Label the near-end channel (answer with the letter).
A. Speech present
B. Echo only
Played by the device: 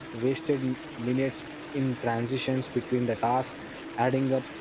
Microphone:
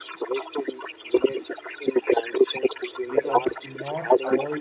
A